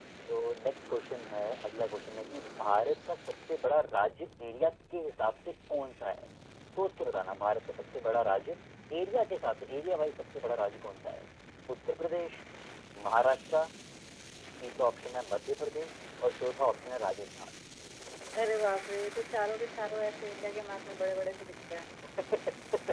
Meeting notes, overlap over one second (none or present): none